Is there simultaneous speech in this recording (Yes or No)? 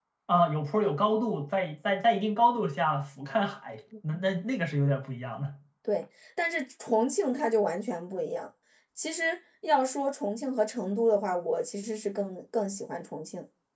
No